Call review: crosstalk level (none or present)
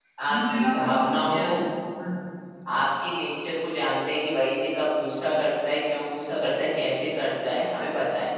present